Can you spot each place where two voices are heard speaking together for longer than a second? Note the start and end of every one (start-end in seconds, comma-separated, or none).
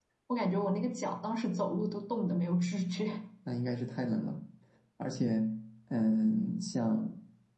none